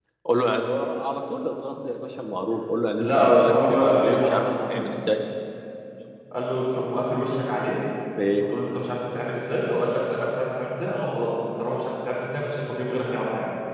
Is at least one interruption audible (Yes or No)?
Yes